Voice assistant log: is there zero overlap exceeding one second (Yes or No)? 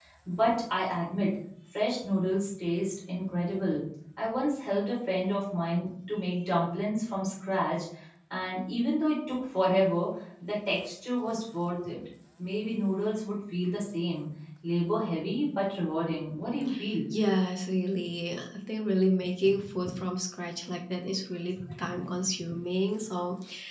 Yes